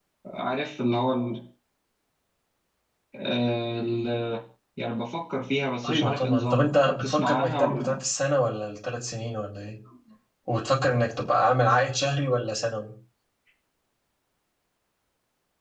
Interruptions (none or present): present